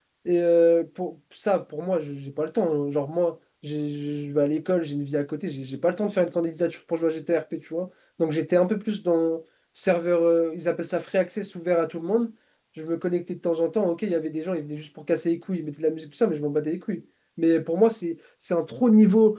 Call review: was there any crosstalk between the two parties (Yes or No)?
No